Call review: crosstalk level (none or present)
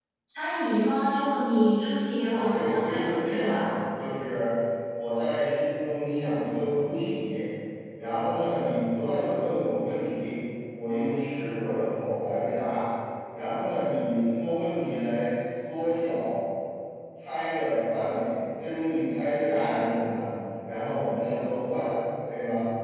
present